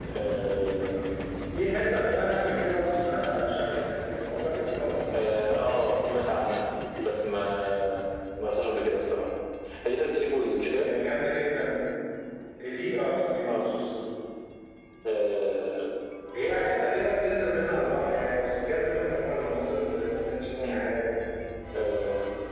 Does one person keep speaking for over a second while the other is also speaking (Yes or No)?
No